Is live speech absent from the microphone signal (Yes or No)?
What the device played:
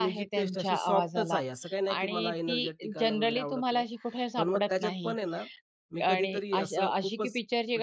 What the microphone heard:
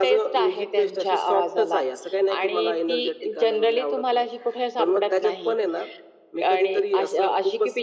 Yes